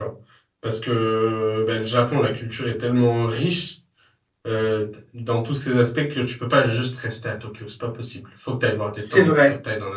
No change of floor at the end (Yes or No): Yes